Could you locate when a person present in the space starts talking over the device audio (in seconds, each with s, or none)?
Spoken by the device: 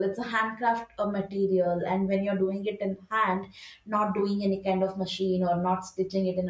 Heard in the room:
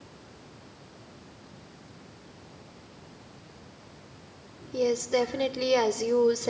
4.7 s